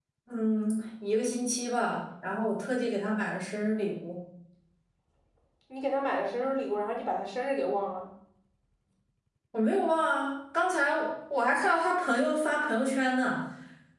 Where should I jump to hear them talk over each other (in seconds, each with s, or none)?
none